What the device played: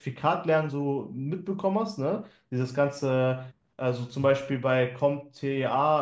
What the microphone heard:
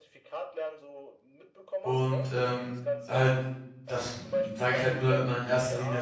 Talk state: both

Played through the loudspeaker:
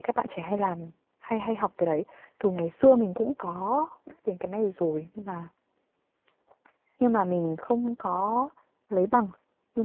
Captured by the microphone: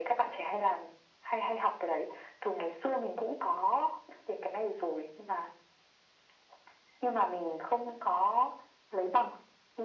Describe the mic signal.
echo only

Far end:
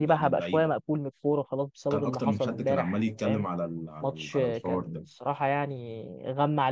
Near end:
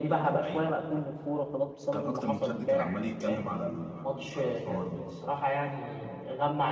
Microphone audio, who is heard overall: echo only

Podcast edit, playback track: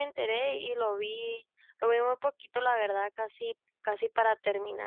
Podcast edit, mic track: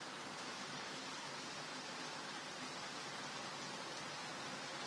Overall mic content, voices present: neither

